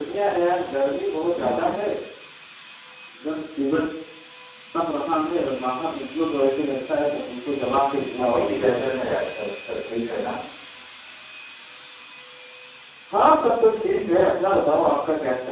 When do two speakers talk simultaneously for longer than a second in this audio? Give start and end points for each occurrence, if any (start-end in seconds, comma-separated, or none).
none